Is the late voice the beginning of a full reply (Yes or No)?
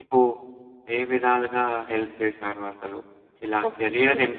No